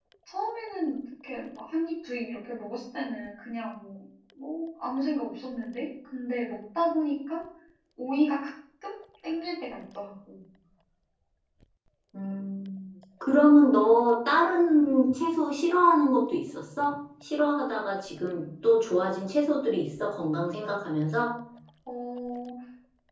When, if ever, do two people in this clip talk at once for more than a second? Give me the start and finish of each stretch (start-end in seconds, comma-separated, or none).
none